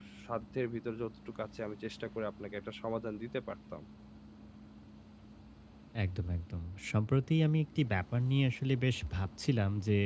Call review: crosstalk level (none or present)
none